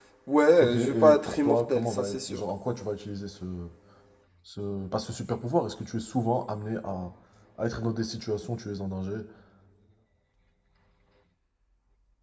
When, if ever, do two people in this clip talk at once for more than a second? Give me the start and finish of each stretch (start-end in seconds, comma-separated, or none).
0.6-2.4